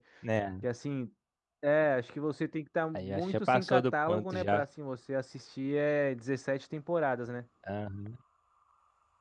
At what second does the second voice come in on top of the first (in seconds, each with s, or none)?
3.0 s